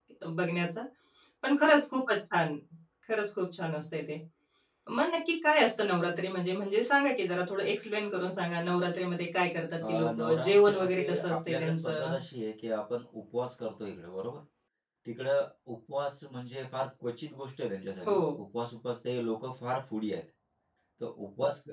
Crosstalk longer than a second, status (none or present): present